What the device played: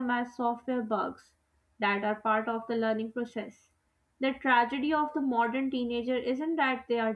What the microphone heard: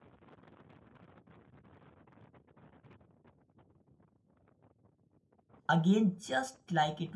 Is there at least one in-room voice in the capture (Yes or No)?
Yes